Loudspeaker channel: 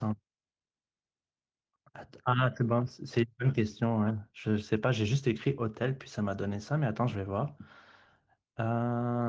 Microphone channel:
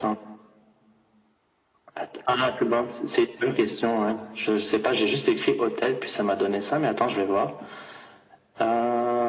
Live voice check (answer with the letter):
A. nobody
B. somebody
A